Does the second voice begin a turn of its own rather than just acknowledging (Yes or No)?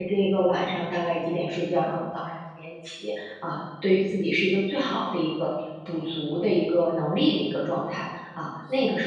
Yes